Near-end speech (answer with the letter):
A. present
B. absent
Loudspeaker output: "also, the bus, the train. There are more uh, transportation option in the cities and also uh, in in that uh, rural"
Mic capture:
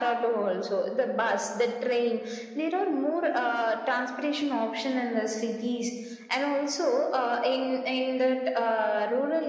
B